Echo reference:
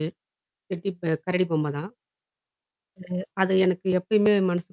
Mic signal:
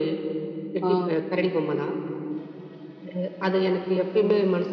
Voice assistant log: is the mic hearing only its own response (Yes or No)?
No